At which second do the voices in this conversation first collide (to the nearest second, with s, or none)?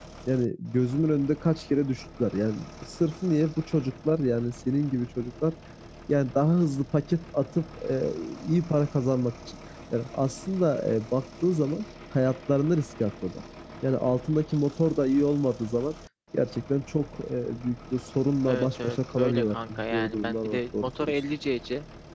18 s